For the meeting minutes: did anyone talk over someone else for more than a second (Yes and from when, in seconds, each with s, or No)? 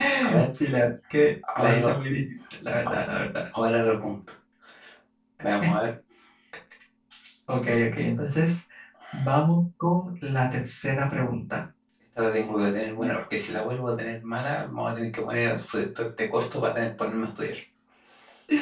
No